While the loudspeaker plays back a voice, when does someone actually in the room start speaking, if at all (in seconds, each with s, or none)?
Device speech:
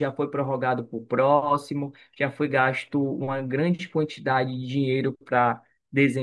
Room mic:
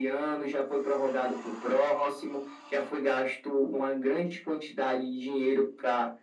none